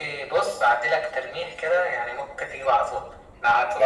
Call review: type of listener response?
listening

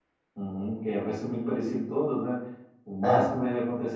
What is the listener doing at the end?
listening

